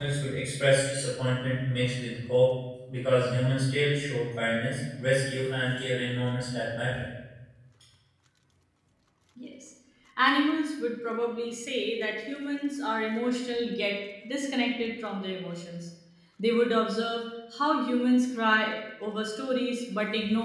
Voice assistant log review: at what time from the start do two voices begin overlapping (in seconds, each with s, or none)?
none